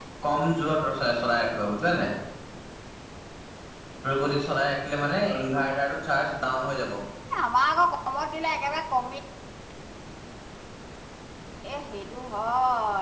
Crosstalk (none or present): none